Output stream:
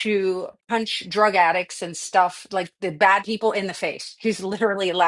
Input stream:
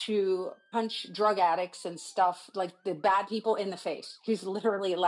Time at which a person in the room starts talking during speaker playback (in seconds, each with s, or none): none